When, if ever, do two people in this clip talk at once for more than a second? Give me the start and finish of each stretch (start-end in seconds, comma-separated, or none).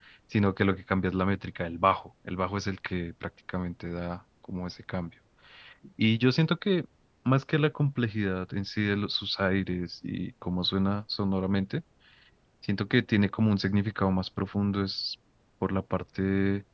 none